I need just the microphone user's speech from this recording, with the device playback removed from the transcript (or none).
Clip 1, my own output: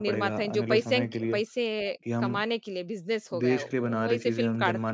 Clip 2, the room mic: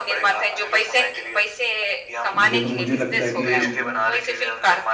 मु जैसे मुझे लगता है कि